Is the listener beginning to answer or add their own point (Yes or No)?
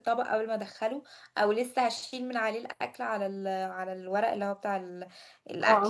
Yes